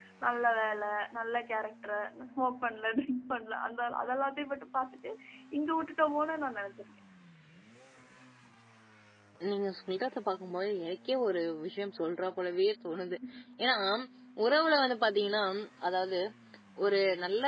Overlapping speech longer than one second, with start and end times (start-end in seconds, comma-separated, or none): none